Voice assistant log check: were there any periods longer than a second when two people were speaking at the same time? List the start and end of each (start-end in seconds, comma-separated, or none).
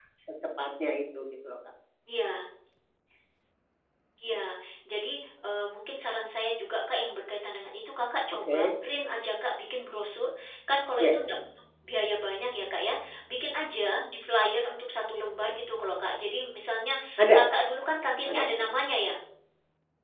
none